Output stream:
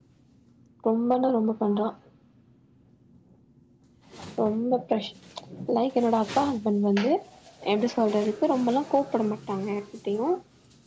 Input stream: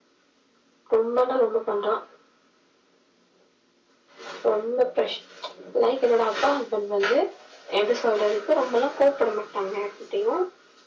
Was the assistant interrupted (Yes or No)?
No